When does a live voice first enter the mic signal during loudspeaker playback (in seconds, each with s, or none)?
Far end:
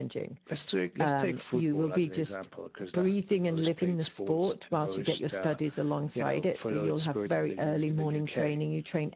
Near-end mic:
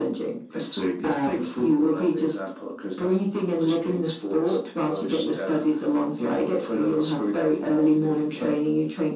none